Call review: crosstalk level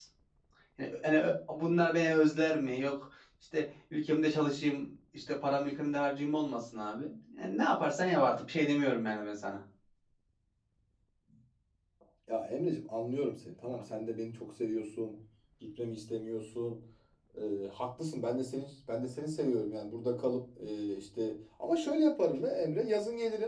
none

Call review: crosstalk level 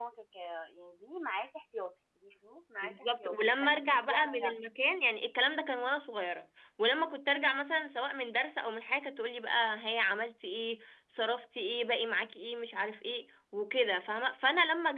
present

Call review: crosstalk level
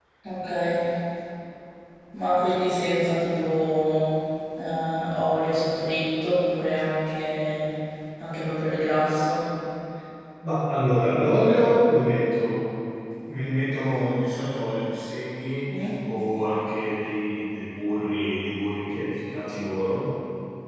none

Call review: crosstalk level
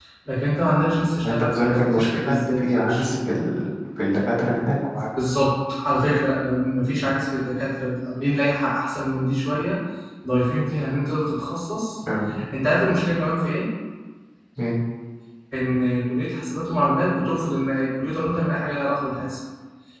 present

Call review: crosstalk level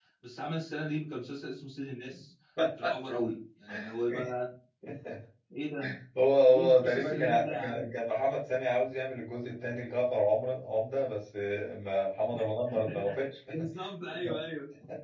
present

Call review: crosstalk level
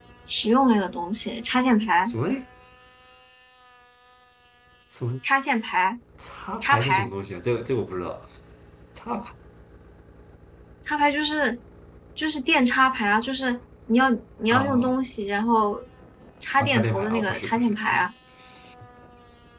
present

